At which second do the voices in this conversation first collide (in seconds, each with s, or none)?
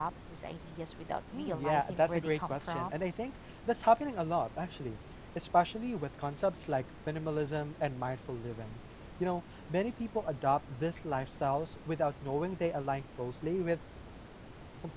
1.3 s